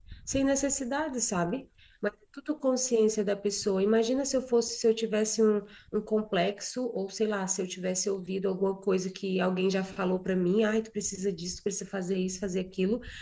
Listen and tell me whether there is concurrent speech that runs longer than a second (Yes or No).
No